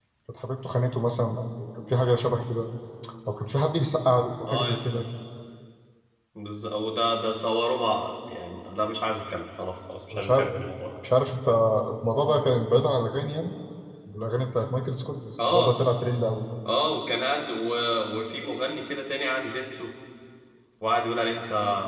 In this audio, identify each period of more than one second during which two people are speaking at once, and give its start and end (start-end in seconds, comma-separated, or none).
none